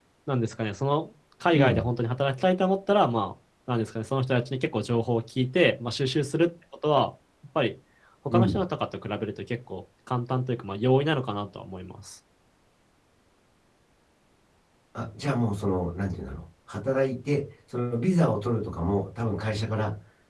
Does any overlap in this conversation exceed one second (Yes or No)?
No